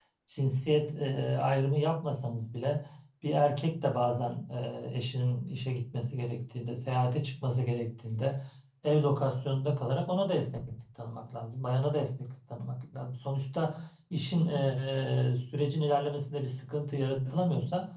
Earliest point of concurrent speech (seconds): none

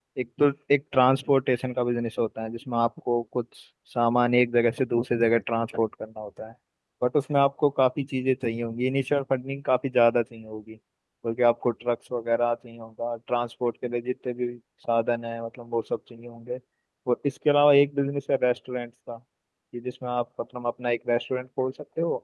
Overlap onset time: none

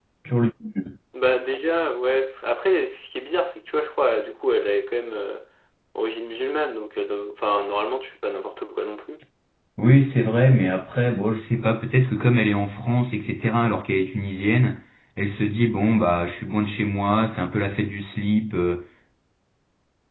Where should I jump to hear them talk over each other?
none

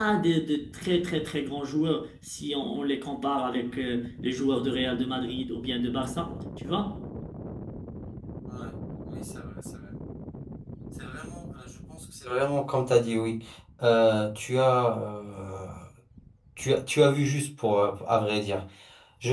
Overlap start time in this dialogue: none

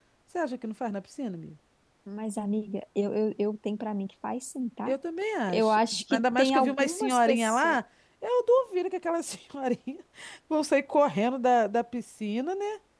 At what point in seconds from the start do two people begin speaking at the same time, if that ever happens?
5.5 s

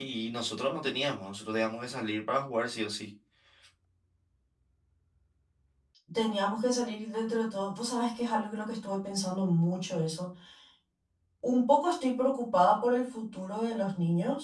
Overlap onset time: none

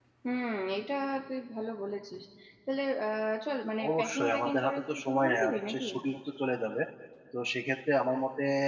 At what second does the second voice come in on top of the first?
3.8 s

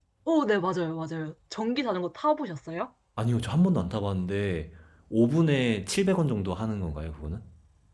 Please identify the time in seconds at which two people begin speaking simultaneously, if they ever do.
none

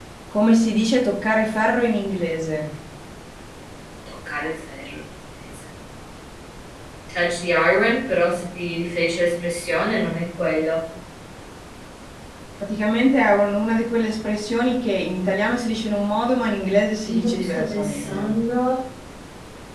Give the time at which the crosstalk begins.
17.1 s

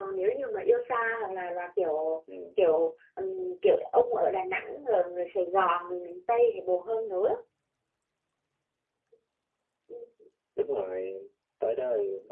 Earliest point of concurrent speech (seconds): none

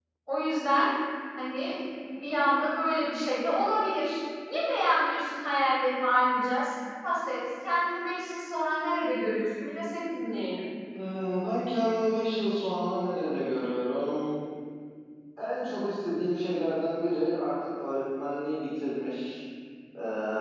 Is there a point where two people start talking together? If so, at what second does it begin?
none

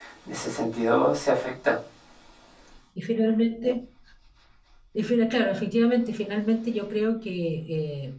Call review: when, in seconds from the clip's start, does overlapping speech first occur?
none

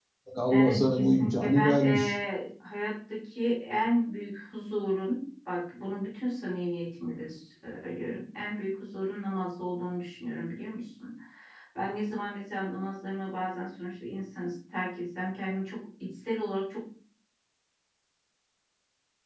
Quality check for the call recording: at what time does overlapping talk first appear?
0.5 s

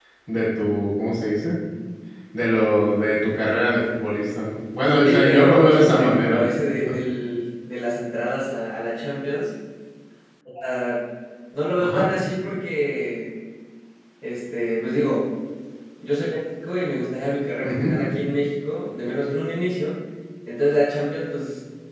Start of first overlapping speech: 5.0 s

